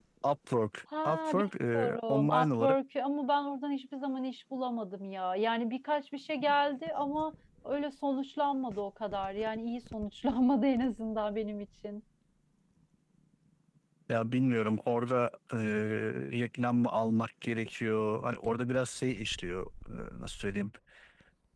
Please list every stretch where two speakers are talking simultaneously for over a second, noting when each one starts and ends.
1.1-2.8

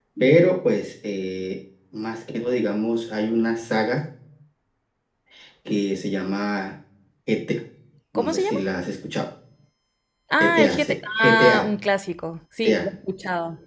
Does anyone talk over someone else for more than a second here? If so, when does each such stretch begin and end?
10.4-11.7

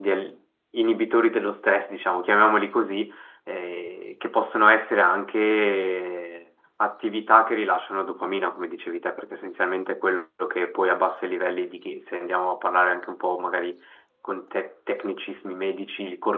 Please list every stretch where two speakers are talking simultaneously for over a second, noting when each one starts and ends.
none

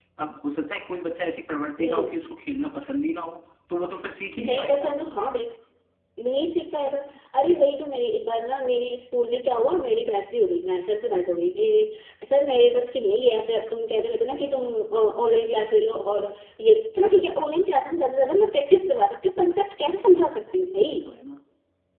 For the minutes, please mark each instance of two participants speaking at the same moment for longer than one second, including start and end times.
none

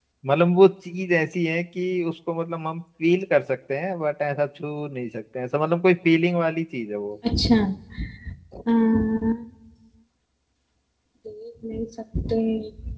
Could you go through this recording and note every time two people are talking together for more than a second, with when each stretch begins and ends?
none

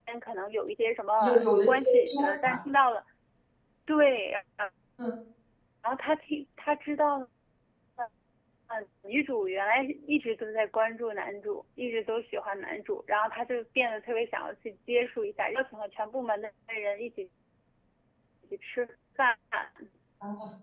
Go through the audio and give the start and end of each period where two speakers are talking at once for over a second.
1.2-2.6

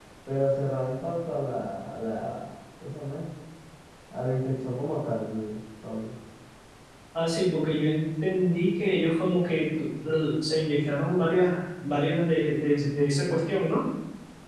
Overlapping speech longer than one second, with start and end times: none

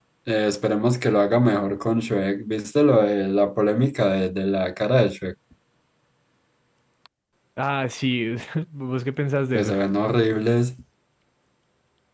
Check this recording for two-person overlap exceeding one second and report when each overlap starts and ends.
none

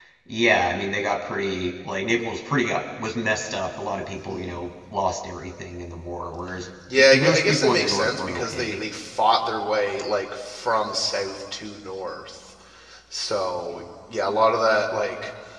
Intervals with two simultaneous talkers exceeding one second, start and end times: 7.1-8.8

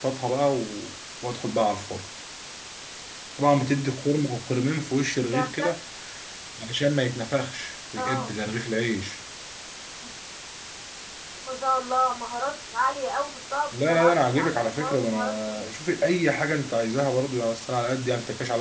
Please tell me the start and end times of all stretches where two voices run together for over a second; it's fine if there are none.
13.8-15.6

